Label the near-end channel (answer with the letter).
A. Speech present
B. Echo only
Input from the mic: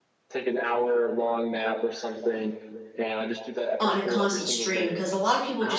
A